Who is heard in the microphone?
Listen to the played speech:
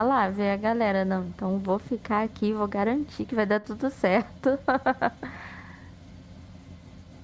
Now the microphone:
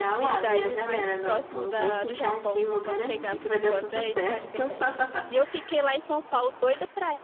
both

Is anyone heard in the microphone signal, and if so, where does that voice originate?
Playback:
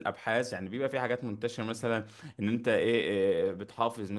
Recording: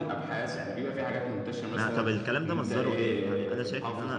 both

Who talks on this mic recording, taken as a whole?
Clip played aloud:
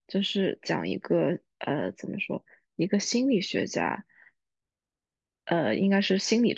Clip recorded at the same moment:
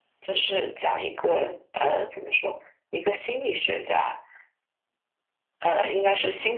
both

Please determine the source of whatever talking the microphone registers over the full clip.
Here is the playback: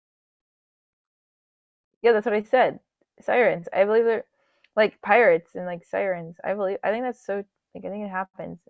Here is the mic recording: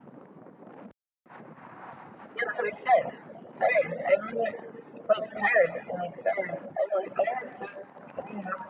echo only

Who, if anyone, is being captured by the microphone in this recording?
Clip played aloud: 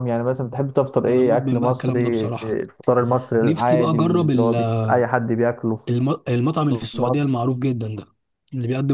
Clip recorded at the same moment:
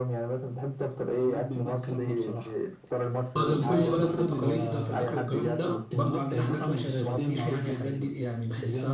both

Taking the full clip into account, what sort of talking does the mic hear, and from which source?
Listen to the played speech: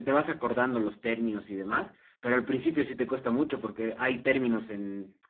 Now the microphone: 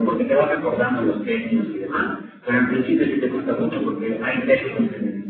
echo only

